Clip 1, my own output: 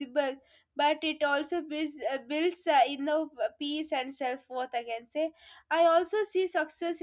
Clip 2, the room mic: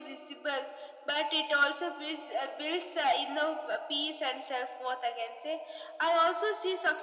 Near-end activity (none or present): none